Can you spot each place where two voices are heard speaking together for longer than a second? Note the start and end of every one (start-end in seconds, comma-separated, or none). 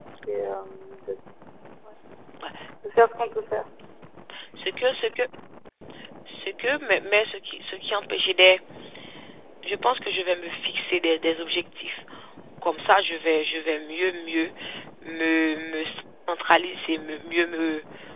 none